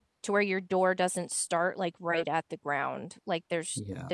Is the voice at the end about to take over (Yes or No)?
No